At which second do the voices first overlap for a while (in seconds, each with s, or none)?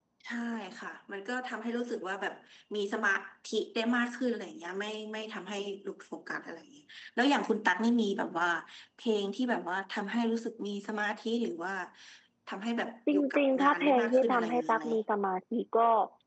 13.1 s